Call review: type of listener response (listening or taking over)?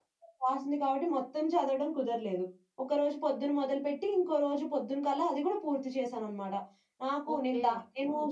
listening